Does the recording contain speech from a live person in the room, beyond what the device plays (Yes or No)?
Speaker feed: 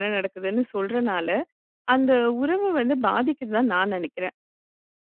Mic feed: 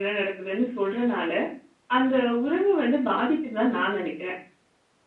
No